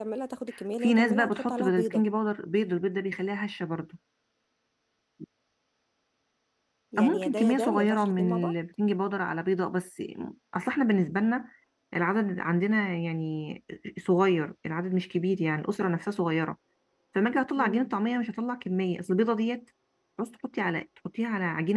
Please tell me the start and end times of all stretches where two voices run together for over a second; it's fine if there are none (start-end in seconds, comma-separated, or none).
0.8-2.0, 7.0-8.5